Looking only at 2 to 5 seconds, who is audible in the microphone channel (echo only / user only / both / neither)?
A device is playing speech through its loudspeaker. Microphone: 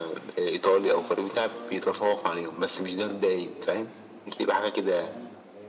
both